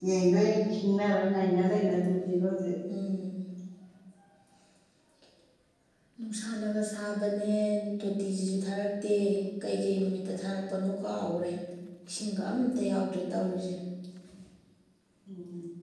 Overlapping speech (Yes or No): No